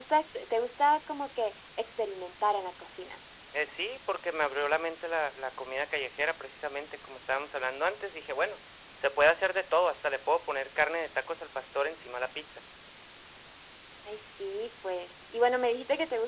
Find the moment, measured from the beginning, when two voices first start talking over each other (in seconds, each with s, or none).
none